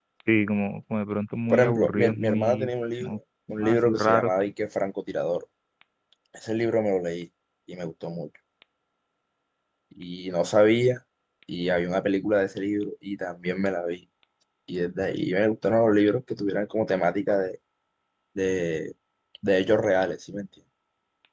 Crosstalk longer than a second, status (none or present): present